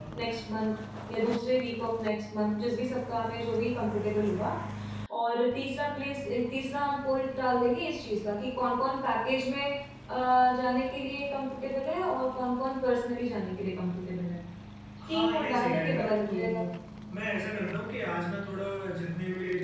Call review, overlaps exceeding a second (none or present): present